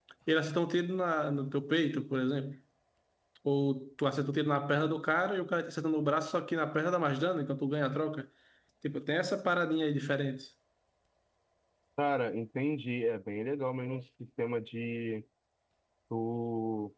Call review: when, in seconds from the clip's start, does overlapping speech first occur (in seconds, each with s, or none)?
none